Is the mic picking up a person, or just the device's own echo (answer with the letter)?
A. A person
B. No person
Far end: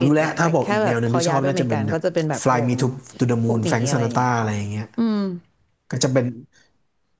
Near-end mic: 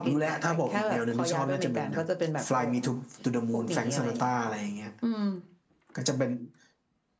B